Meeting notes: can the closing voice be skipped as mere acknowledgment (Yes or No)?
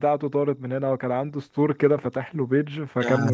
Yes